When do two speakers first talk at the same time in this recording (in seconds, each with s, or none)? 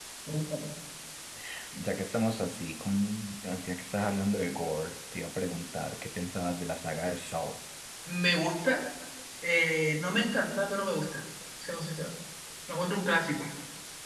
none